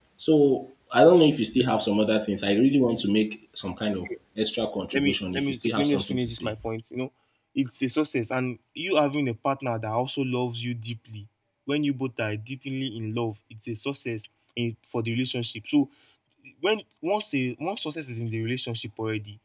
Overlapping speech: Yes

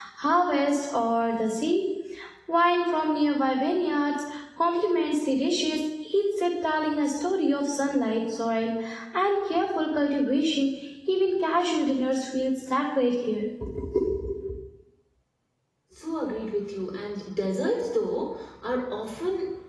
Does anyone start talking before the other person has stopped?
No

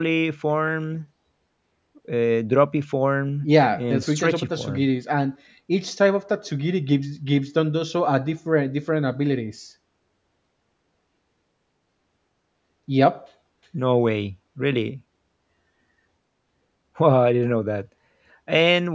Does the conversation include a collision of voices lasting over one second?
Yes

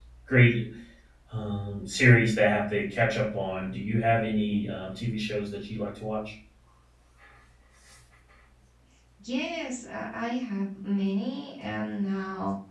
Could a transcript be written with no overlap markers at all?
Yes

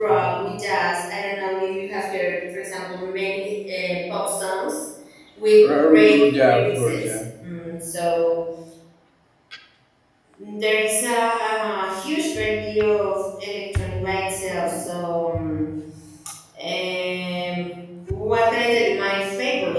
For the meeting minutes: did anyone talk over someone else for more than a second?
Yes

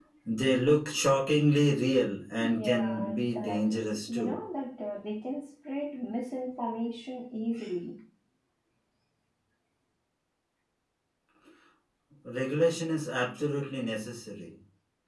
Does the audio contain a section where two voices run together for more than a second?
Yes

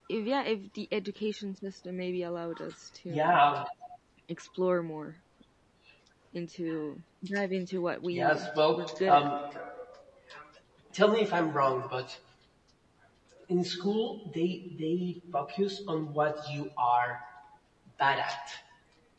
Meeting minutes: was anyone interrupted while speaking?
Yes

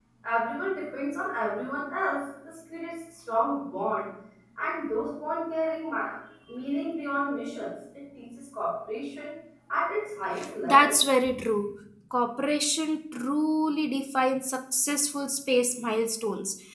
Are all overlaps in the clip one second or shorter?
Yes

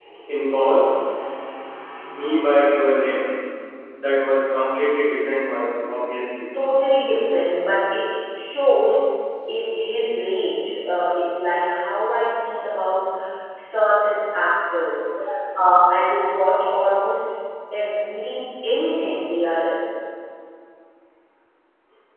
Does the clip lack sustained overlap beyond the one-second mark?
Yes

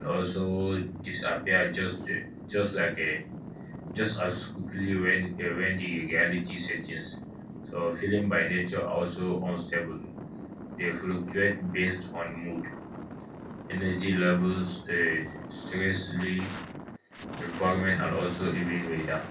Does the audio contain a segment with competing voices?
No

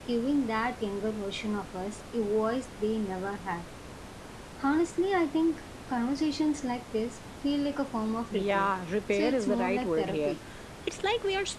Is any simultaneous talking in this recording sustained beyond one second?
Yes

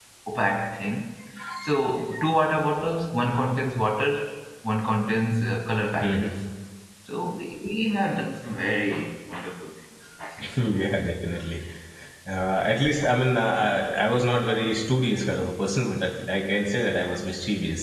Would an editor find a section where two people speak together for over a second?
No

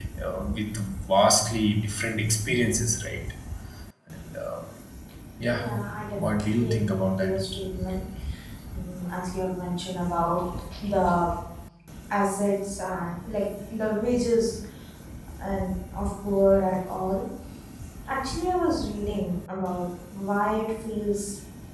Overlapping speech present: Yes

